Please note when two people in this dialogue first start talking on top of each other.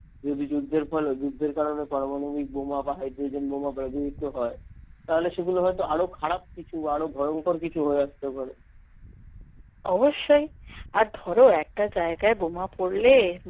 none

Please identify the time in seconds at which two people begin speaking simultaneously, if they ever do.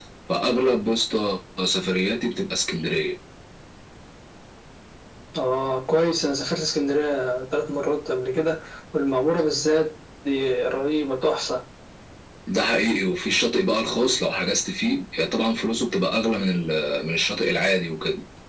none

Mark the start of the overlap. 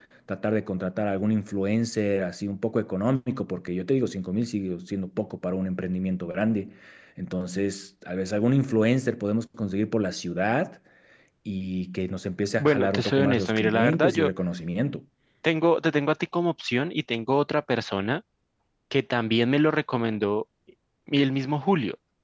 12.6 s

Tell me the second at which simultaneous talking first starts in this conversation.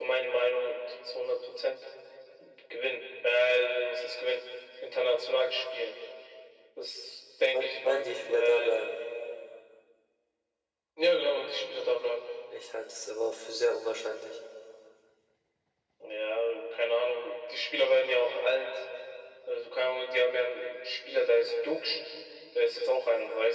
7.5 s

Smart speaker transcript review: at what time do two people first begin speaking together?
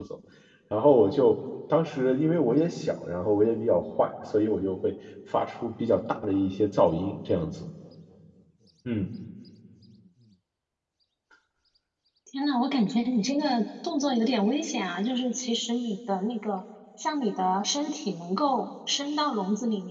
none

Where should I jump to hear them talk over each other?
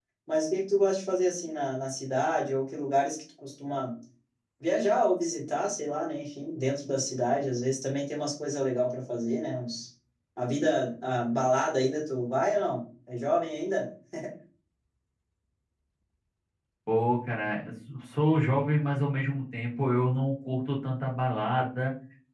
none

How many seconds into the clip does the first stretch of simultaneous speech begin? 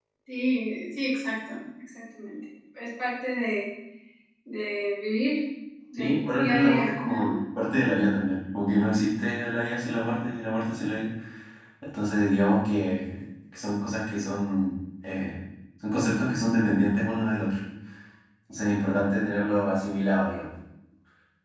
6.0 s

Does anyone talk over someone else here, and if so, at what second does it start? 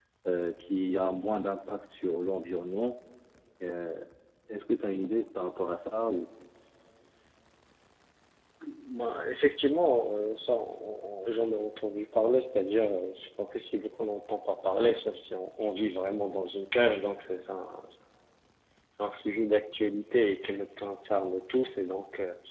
none

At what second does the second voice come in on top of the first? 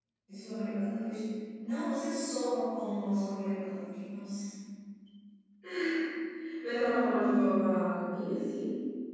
none

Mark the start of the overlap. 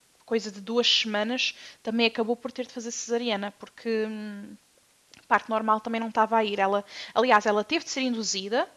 none

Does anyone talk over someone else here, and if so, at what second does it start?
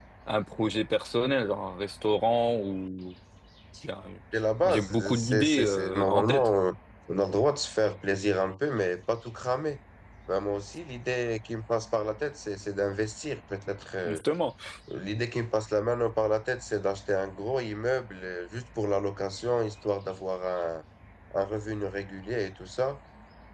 4.6 s

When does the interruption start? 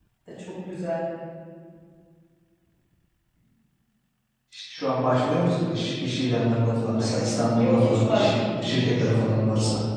7.6 s

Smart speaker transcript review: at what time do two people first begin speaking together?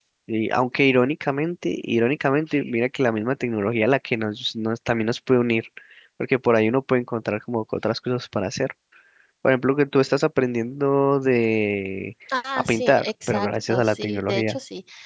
12.6 s

